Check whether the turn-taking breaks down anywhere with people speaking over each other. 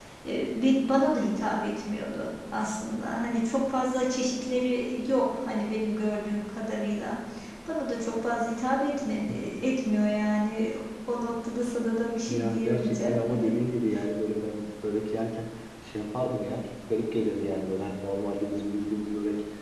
Yes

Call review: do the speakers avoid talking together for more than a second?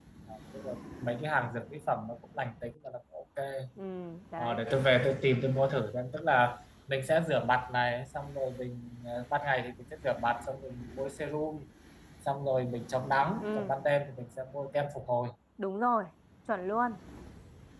Yes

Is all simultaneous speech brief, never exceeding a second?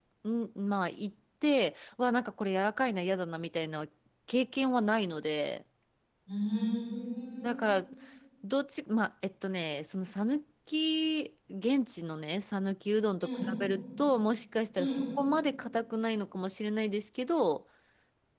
Yes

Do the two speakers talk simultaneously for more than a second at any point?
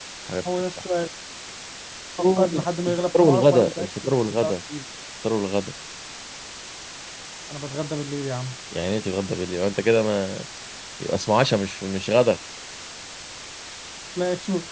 Yes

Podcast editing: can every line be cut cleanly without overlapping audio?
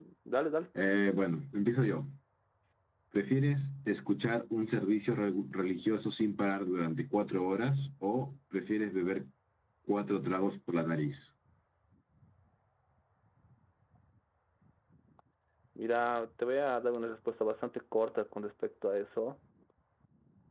Yes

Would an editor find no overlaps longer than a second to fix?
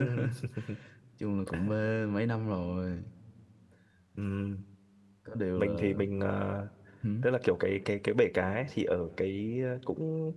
Yes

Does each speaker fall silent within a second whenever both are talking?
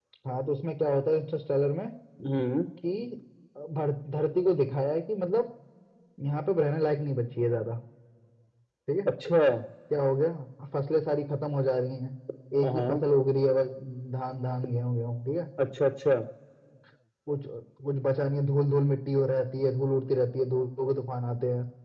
Yes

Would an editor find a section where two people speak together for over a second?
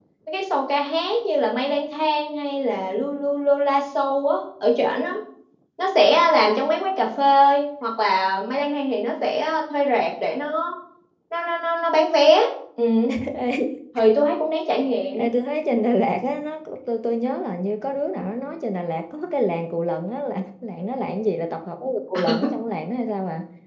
No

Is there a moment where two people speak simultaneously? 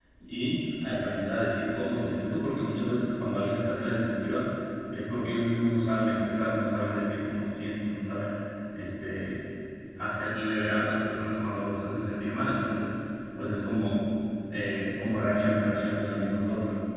No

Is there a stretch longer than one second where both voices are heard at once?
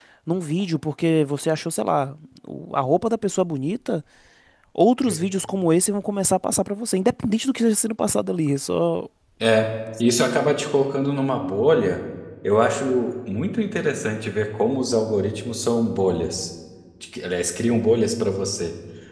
No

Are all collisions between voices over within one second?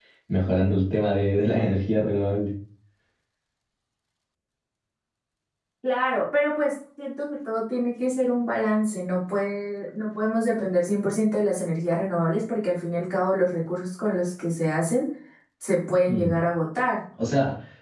Yes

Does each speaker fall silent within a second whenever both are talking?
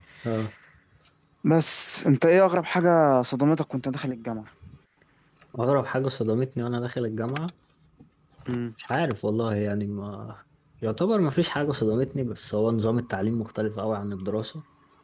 Yes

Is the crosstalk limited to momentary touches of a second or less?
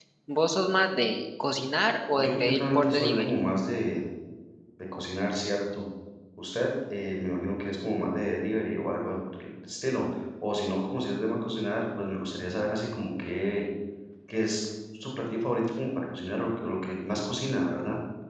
No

